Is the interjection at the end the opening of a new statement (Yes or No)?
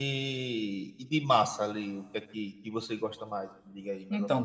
Yes